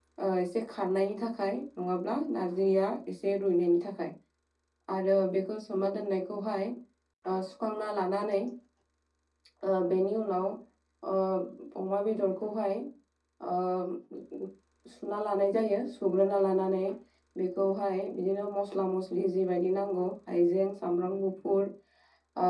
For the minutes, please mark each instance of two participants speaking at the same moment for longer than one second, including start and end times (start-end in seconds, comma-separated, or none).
none